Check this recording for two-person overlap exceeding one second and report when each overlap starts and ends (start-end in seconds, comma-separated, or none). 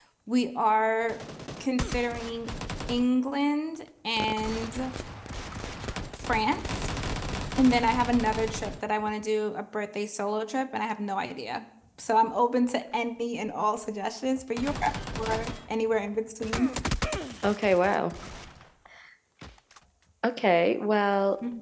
none